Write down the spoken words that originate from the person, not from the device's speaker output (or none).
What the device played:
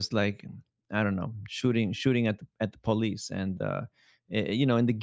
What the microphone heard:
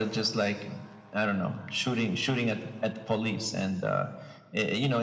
none